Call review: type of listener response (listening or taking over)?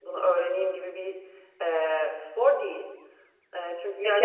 taking over